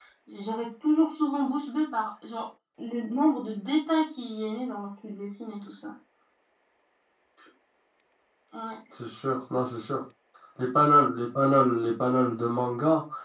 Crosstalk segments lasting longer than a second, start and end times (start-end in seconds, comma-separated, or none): none